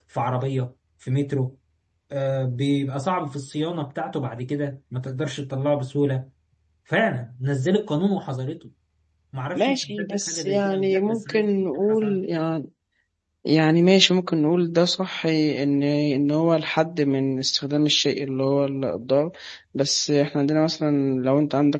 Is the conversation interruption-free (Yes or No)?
No